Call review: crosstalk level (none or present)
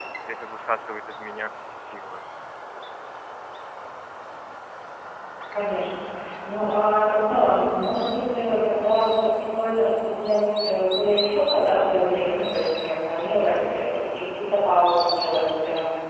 none